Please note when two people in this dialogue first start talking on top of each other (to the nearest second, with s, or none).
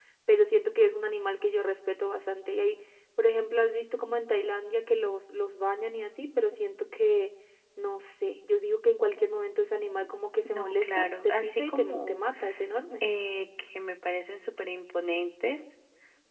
10 s